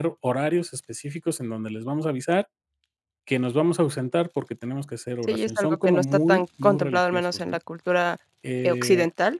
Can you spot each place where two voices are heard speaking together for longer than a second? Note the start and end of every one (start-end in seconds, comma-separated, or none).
5.2-7.6